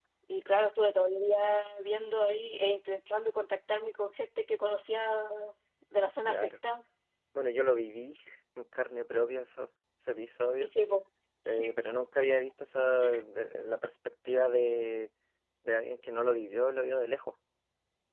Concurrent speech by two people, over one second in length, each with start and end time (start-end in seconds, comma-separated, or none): none